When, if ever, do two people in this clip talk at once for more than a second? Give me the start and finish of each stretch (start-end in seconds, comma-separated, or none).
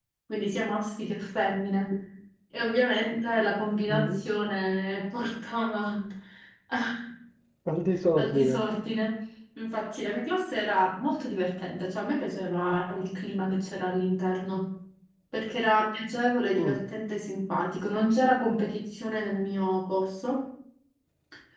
none